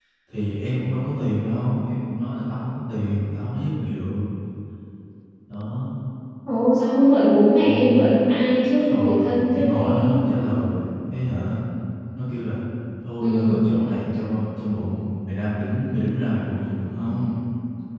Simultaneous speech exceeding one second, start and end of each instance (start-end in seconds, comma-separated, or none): 8.8-10.1